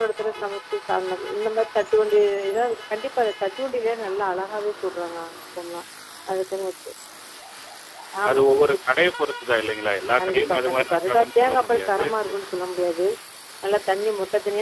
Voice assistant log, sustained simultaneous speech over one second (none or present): present